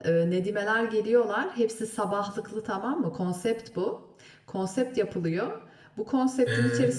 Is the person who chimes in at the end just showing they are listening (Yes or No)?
Yes